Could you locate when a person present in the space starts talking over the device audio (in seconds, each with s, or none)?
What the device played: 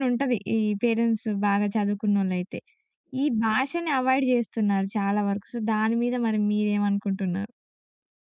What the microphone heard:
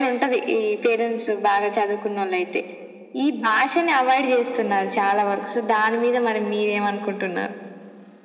none